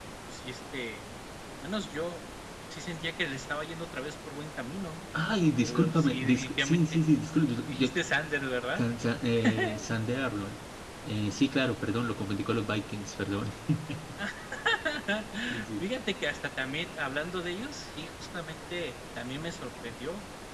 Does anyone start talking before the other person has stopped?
Yes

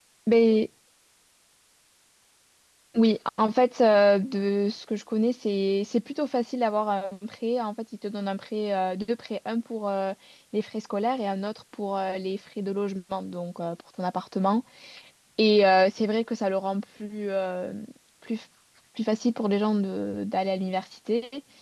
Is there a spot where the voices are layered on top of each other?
No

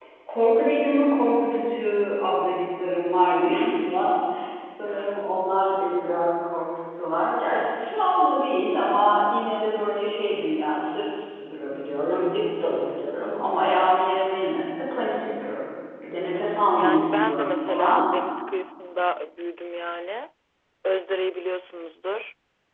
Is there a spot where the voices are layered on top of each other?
Yes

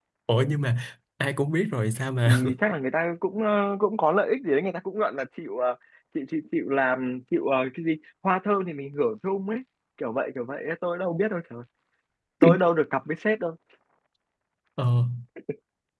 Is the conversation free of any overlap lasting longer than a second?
Yes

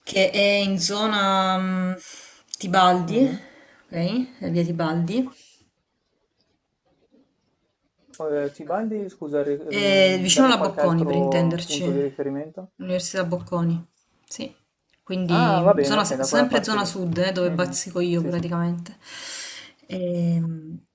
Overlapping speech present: Yes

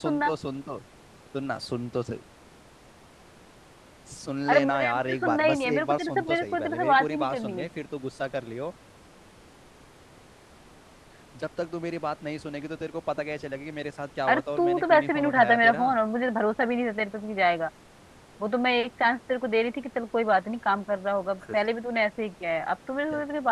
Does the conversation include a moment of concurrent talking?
Yes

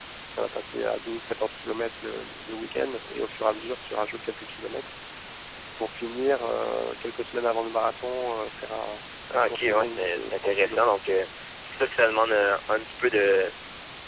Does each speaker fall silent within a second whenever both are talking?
No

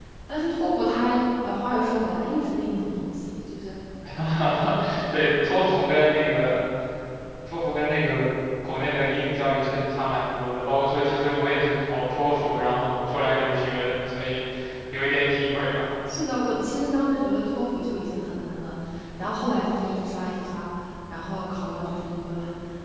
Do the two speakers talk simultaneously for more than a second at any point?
No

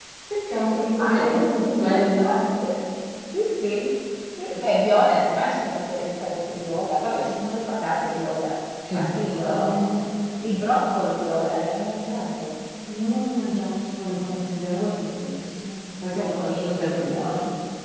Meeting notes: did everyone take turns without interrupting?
No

